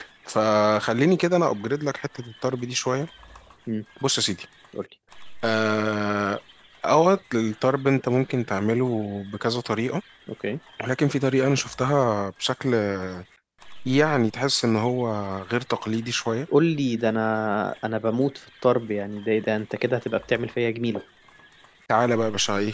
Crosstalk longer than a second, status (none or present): none